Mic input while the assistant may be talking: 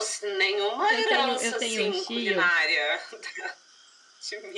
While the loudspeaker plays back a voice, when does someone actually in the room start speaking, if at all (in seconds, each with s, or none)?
0.9 s